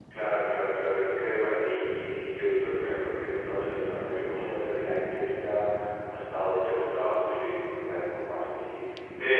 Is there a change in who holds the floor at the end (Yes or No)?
No